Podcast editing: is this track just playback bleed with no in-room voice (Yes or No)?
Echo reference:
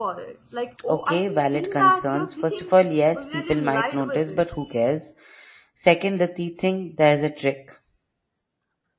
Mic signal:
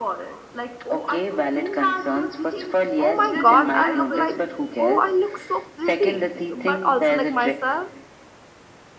No